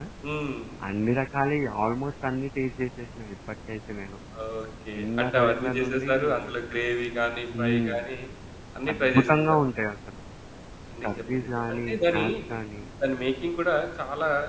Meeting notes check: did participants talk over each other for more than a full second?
Yes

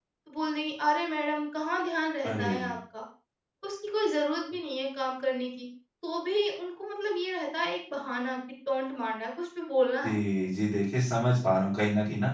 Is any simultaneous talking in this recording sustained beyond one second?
No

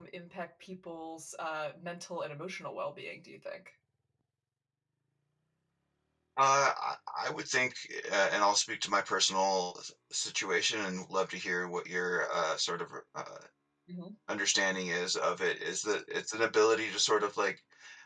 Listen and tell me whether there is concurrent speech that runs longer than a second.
No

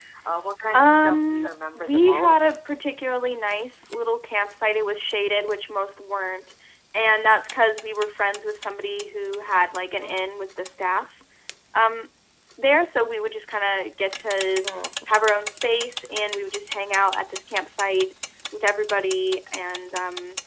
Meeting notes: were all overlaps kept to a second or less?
No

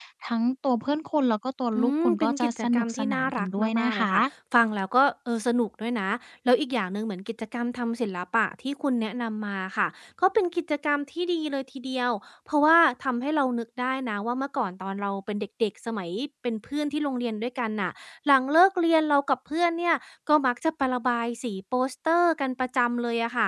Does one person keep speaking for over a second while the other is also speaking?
Yes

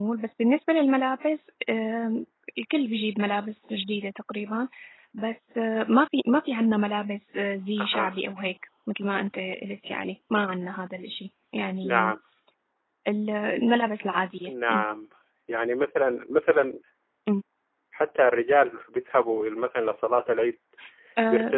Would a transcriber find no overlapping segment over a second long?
Yes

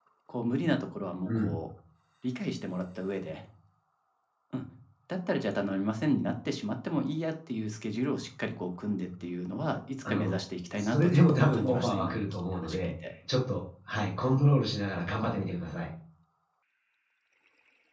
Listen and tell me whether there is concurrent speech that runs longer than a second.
Yes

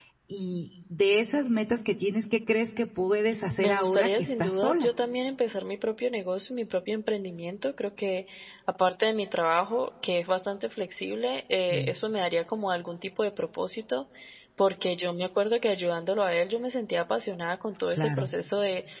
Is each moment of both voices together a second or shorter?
No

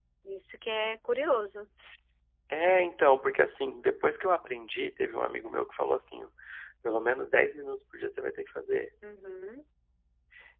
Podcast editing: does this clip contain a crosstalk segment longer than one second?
No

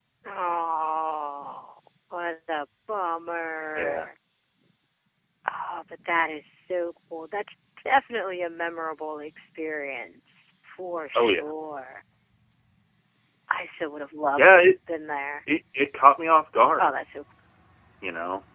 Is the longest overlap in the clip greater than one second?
No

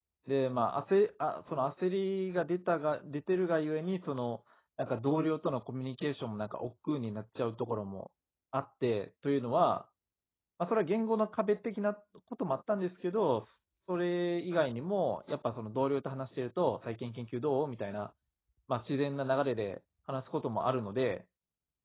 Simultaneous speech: No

